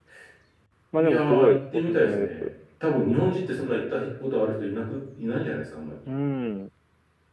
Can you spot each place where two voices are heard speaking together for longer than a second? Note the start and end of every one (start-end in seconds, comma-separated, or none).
1.0-2.5